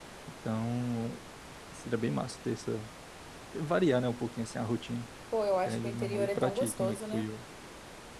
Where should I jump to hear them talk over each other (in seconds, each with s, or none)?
5.7 s